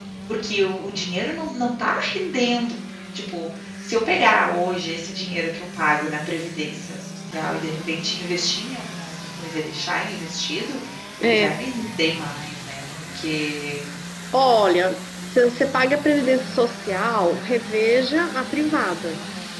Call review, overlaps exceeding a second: none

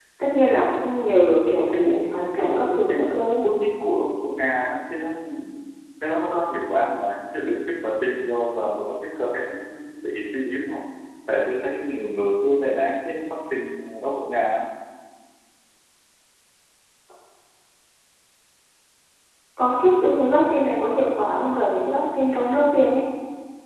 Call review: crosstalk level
present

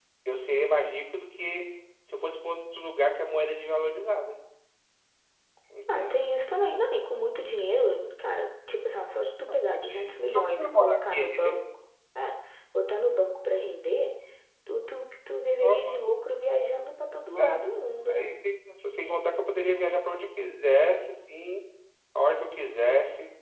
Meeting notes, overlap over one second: present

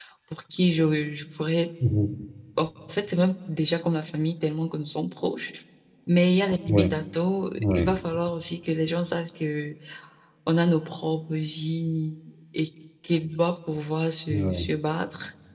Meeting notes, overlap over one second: none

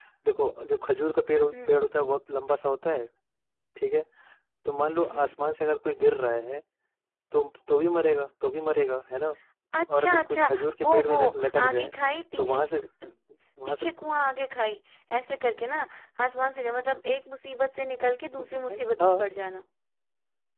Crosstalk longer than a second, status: present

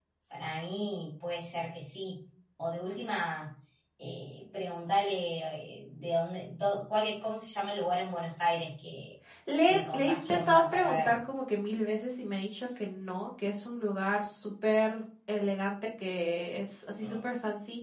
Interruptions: present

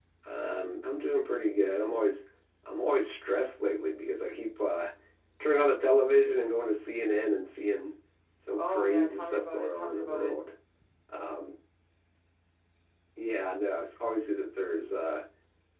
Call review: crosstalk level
present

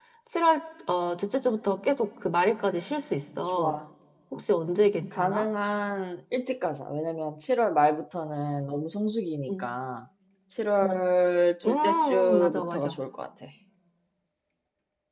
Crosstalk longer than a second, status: present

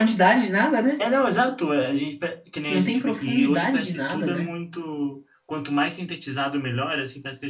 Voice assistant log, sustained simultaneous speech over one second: present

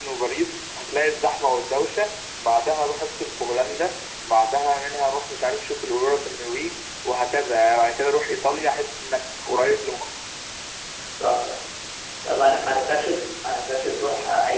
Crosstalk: none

